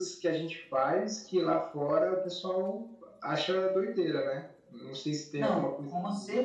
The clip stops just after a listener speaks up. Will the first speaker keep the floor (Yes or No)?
No